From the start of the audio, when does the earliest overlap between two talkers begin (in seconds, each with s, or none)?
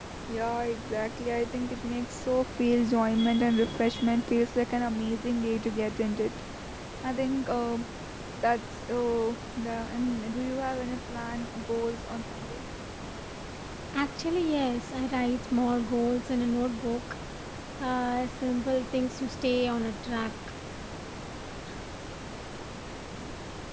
none